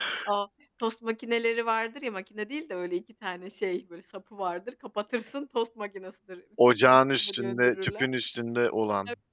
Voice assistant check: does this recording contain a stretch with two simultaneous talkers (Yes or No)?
Yes